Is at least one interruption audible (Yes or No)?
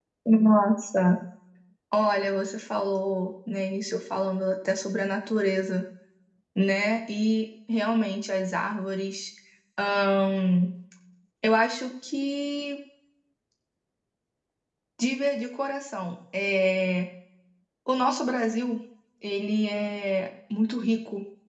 No